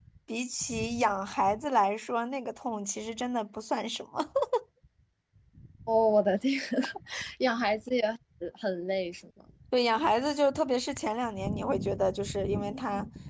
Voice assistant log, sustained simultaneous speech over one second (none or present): none